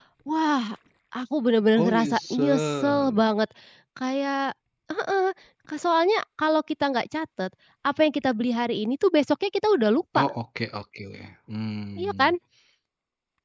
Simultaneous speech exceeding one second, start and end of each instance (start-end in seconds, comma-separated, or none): 1.8-3.1